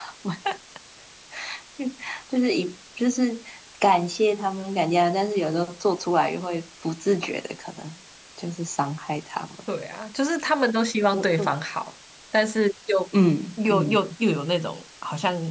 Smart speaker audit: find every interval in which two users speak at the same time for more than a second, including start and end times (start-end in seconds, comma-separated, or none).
none